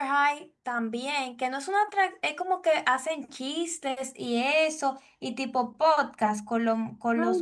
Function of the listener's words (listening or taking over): taking over